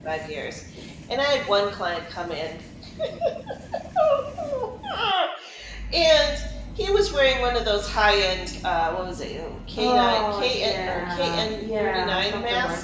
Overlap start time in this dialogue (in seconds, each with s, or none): 9.8 s